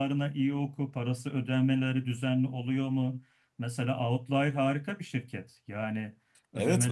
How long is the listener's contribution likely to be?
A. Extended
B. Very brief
A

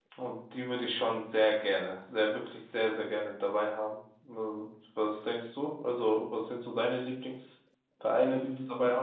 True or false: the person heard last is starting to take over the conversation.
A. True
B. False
A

